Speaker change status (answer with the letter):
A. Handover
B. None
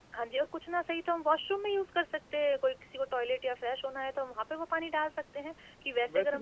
A